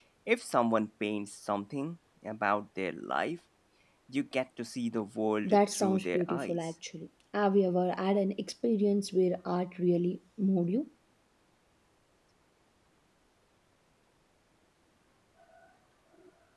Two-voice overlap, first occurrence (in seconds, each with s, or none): 5.4 s